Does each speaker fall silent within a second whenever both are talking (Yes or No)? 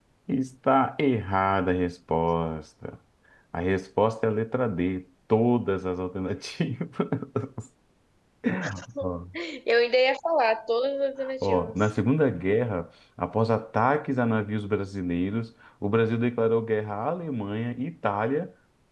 Yes